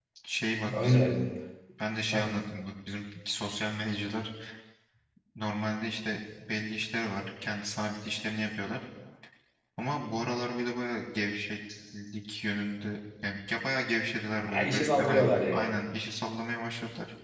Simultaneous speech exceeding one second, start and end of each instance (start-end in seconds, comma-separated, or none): 14.5-15.8